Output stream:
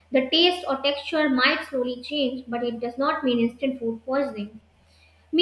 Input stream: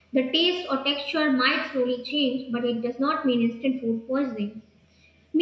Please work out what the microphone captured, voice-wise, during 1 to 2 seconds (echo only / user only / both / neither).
echo only